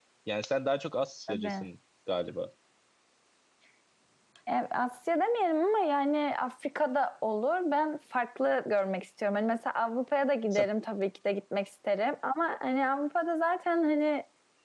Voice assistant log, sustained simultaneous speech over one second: none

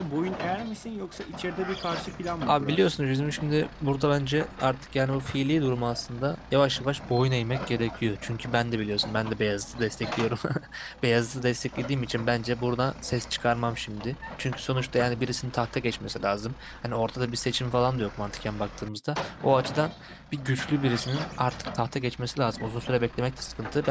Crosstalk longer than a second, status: none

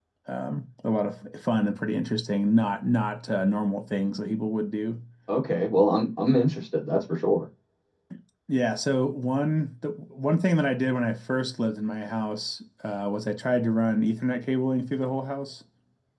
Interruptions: none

